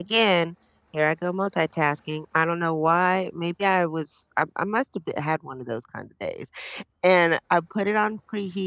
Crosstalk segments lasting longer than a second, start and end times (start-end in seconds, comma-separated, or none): none